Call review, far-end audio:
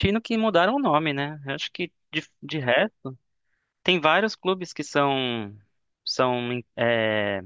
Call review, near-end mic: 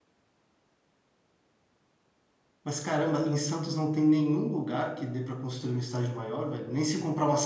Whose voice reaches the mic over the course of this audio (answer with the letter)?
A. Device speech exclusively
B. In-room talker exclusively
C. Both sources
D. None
B